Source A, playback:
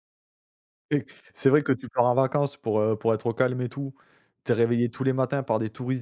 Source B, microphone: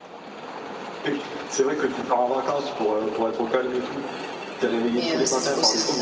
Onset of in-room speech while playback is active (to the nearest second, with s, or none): 5 s